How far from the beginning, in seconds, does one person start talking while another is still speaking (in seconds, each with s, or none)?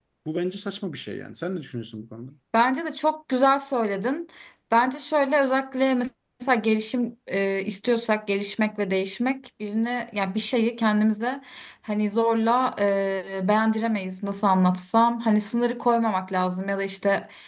none